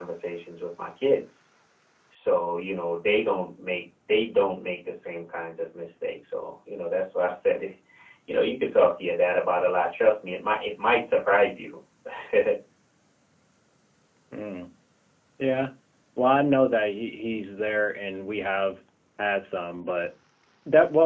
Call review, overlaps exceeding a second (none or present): none